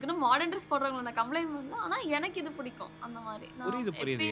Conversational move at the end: taking over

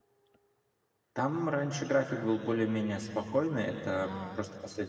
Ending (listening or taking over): listening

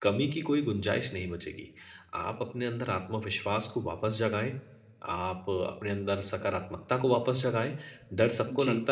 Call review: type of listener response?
listening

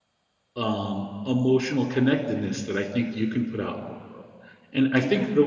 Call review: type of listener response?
listening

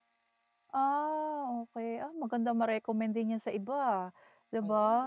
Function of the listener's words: listening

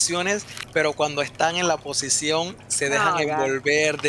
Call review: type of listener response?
listening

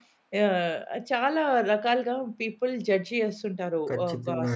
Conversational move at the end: listening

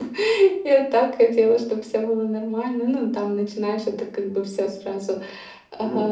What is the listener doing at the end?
taking over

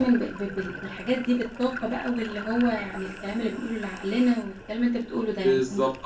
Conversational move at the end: taking over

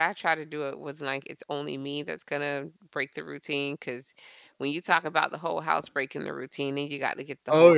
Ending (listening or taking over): listening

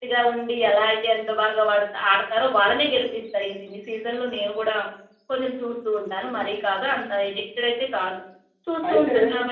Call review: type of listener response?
listening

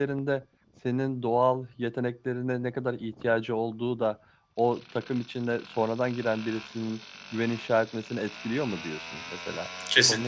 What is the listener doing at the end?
taking over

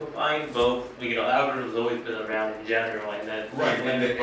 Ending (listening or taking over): taking over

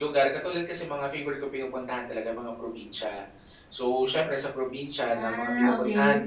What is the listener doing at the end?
listening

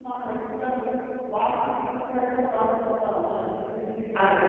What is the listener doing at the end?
taking over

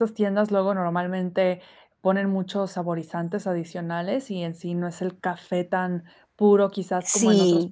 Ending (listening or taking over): taking over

